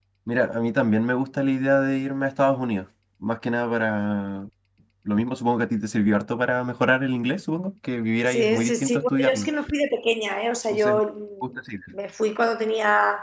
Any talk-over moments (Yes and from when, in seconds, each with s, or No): Yes, from 8.3 s